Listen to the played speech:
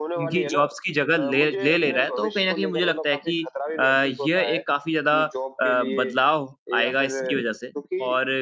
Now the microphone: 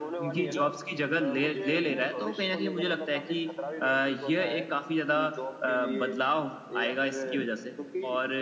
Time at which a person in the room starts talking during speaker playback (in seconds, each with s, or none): none